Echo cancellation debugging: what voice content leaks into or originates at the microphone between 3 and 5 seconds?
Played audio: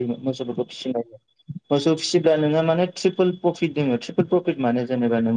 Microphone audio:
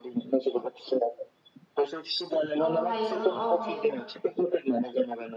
both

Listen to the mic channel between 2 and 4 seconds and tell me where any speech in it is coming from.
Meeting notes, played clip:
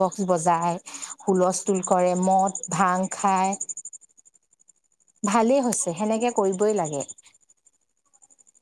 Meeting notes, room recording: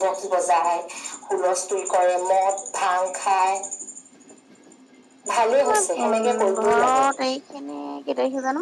echo only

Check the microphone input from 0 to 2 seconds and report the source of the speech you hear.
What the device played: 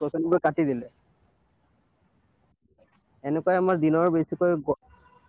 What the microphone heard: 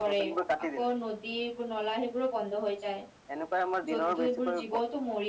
both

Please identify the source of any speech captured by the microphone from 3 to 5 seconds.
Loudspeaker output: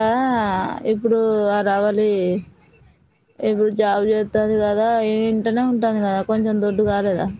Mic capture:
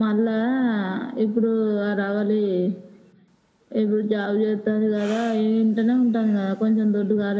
echo only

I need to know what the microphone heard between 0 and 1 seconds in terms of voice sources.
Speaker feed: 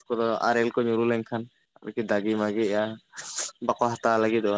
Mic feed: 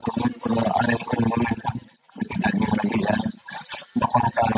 echo only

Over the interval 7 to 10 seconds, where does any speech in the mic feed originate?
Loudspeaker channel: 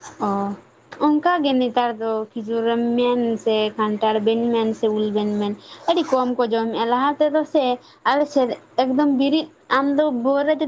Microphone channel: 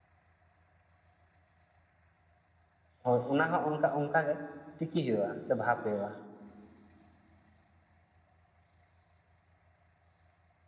neither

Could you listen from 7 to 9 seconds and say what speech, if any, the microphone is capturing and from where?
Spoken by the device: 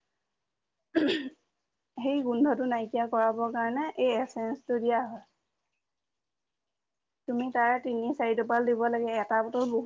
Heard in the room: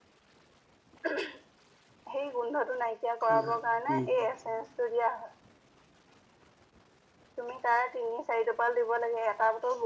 echo only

